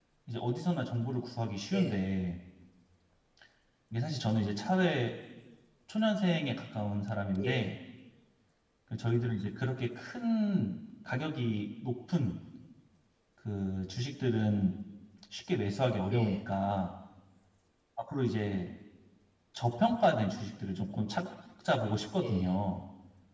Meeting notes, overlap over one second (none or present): none